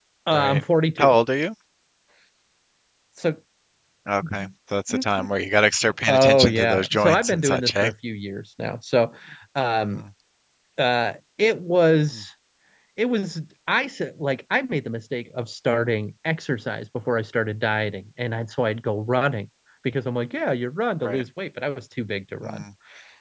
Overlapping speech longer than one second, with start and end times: 6.1-7.9

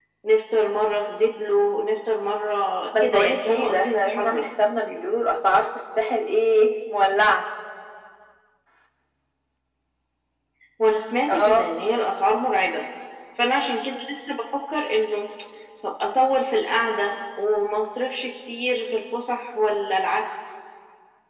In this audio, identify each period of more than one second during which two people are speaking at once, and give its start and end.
3.0-4.4

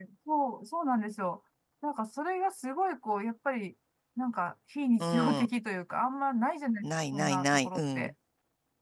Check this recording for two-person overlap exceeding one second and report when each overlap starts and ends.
6.8-8.1

